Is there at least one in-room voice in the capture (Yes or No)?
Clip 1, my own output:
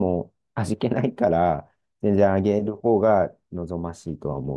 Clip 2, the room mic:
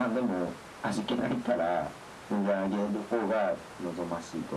No